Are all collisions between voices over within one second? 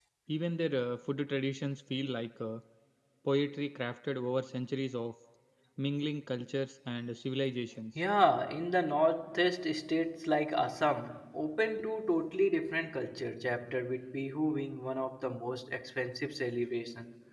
Yes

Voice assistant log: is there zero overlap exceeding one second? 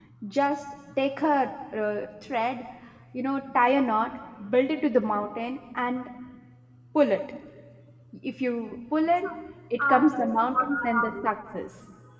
No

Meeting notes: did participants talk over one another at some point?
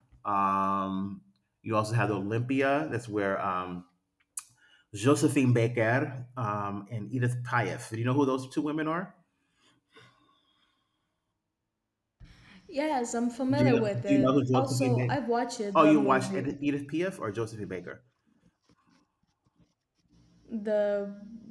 Yes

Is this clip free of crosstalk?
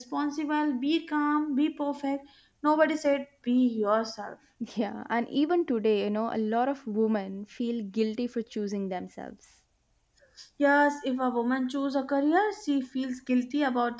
Yes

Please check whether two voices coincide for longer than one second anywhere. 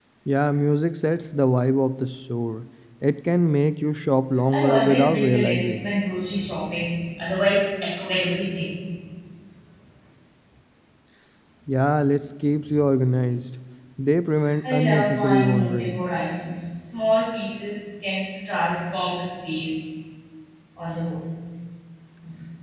Yes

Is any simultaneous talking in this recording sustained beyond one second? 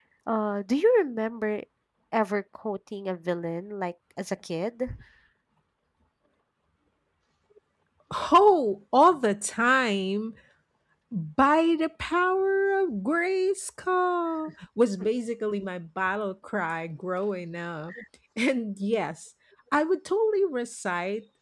No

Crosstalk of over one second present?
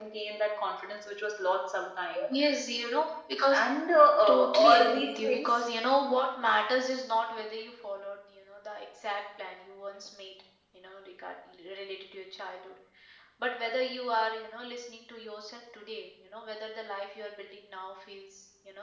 Yes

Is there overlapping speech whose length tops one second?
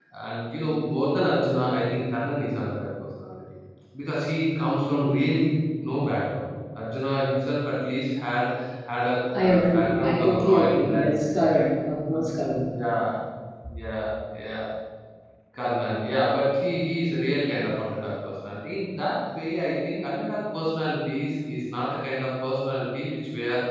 Yes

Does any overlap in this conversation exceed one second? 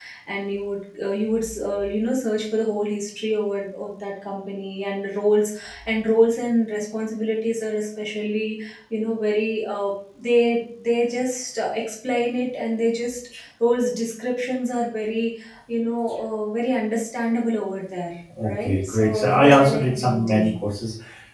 Yes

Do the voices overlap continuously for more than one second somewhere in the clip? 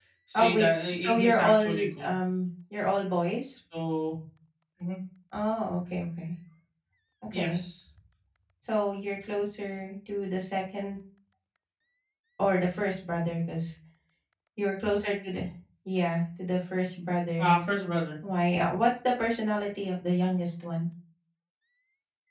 Yes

